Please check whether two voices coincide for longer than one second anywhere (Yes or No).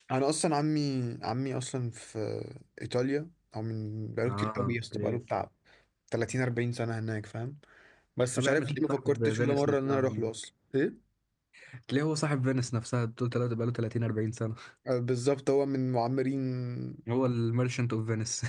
Yes